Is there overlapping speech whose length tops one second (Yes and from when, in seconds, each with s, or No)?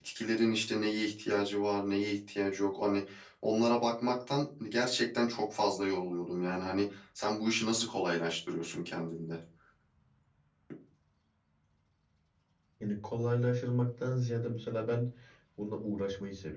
No